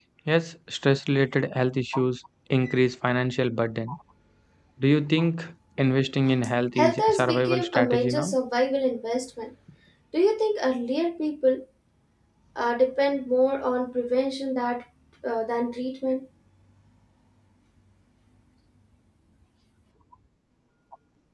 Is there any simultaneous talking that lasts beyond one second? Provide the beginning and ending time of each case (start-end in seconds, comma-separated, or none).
6.8-8.4